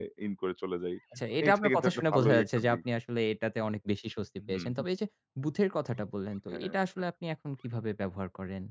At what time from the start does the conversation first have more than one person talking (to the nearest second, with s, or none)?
1 s